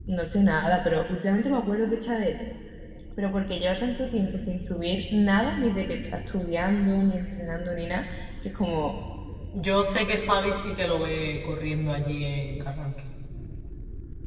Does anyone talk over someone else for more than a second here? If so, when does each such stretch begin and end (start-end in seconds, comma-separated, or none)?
none